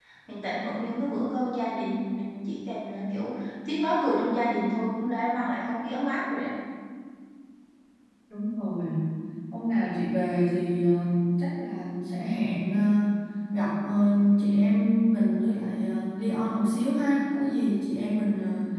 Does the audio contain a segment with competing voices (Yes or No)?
No